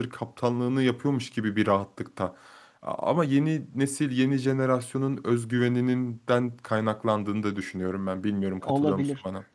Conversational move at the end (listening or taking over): taking over